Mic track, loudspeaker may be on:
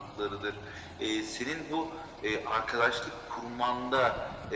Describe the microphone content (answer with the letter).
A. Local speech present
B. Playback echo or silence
B